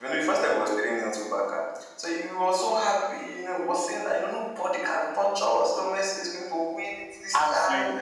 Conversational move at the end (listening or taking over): listening